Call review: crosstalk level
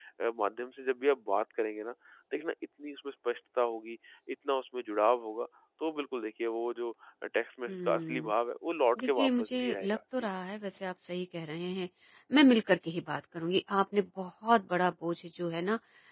present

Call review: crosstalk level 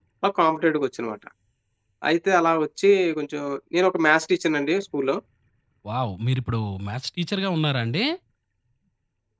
none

